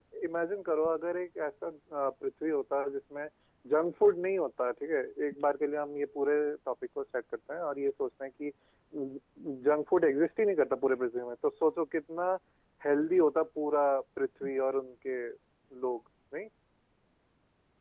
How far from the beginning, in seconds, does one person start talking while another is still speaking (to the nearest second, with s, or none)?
none